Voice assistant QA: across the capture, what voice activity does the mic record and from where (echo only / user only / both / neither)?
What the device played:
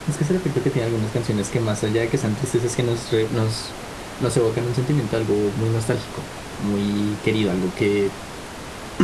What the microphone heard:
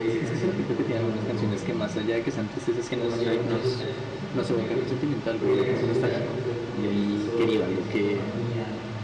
both